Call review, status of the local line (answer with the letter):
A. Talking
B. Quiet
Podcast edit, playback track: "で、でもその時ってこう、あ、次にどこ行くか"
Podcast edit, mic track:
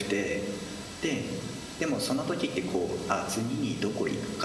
B